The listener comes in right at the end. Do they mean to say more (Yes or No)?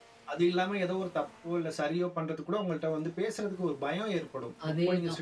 No